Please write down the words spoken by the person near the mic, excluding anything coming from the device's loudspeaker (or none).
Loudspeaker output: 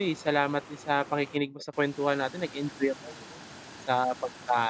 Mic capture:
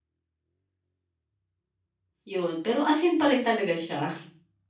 'Yon. Pero asin pa rin talaga siya.